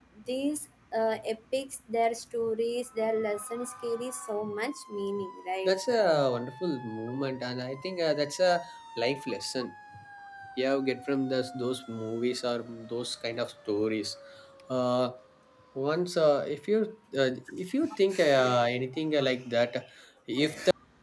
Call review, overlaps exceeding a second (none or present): none